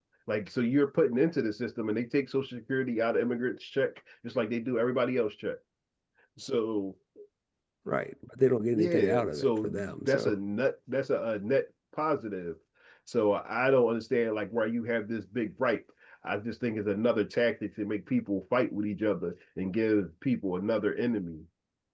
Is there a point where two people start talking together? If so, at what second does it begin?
8.7 s

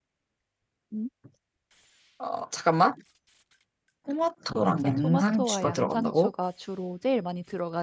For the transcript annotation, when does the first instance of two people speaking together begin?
4.6 s

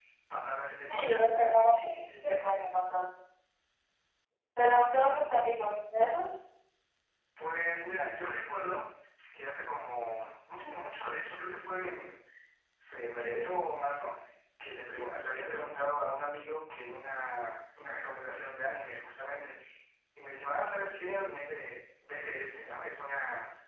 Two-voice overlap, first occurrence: 0.9 s

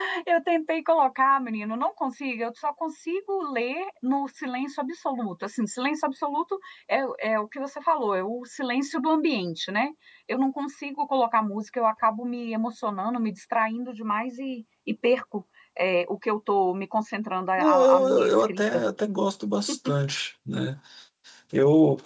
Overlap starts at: 17.6 s

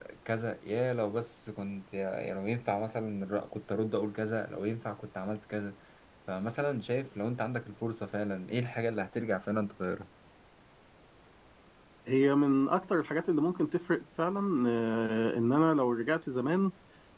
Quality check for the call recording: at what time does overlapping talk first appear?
none

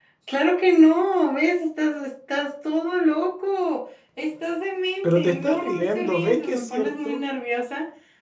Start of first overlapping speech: 5.0 s

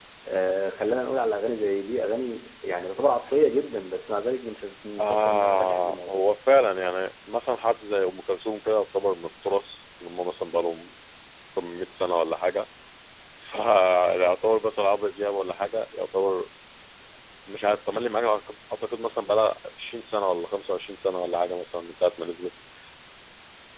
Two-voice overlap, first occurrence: 5.0 s

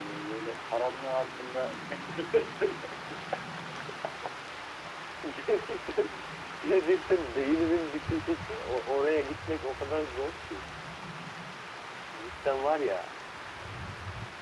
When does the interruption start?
none

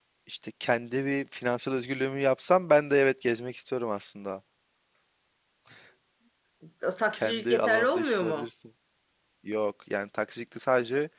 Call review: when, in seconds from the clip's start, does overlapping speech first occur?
7.1 s

